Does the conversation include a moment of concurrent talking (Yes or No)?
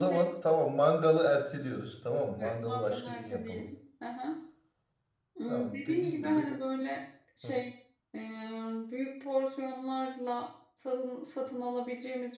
Yes